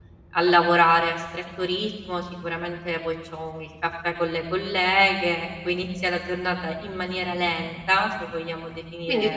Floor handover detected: Yes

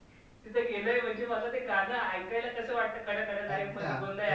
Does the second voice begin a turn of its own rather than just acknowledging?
Yes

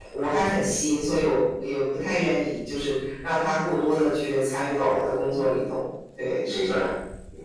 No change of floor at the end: No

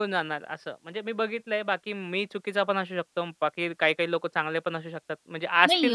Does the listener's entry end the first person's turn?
Yes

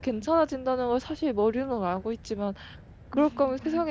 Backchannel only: Yes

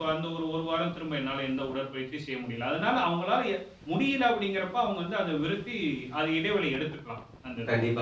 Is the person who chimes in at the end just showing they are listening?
No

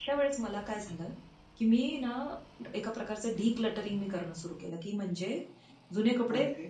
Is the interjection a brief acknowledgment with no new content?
Yes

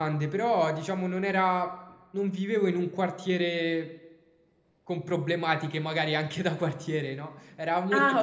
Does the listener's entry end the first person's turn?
No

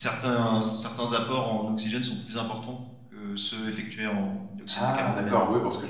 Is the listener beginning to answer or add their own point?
Yes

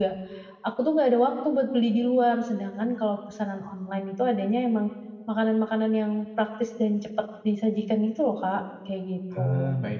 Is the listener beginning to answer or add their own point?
Yes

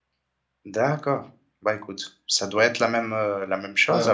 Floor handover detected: Yes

